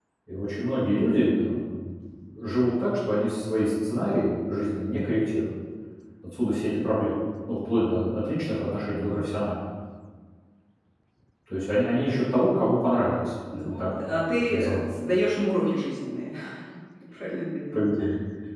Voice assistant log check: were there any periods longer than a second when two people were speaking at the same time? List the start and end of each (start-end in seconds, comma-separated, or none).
13.5-14.8